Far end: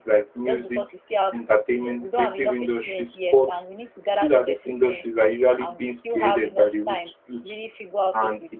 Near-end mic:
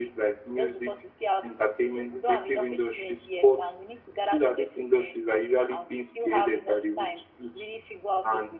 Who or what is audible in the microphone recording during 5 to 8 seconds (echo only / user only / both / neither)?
echo only